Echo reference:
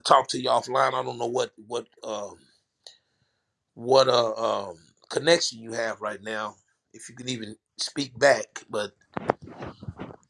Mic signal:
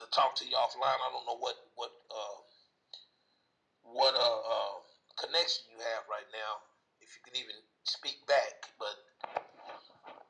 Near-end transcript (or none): none